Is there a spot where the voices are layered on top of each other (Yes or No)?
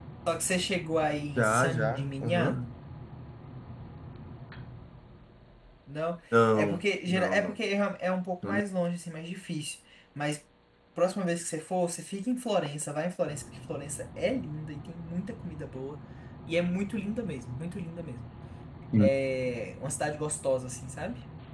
Yes